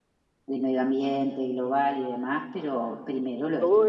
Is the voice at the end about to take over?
Yes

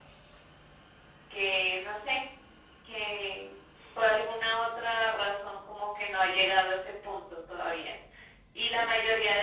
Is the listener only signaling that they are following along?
Yes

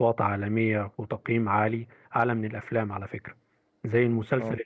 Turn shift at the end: No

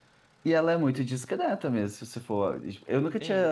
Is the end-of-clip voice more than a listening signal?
Yes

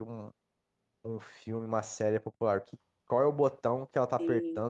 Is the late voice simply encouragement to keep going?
Yes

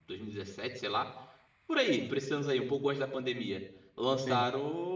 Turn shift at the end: No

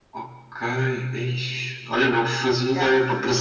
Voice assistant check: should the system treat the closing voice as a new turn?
No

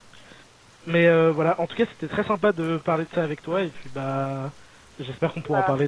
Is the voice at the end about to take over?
No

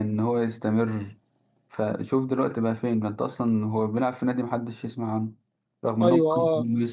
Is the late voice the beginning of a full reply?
No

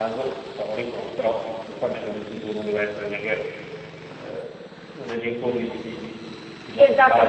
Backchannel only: No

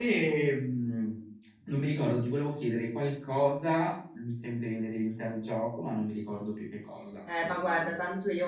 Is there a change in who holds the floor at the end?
Yes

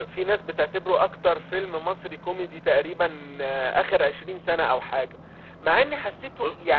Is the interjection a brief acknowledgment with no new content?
Yes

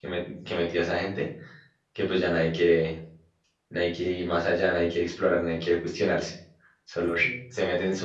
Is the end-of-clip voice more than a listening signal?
No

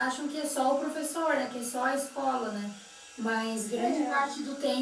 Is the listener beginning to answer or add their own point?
No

